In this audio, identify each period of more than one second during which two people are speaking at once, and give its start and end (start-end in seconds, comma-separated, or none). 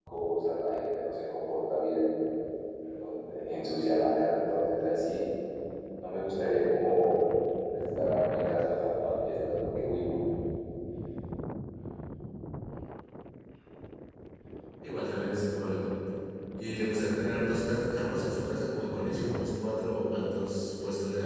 none